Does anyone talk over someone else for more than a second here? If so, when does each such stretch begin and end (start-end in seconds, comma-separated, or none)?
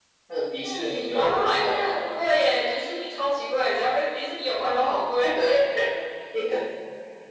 0.6-2.0